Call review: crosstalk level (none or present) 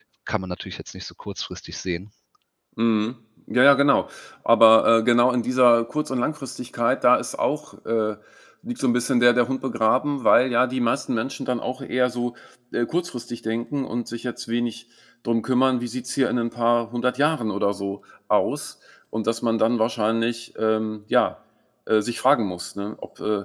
none